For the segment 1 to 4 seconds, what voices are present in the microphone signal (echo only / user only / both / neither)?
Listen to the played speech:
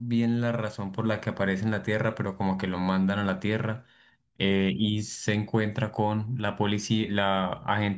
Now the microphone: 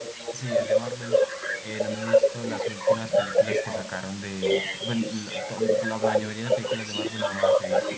both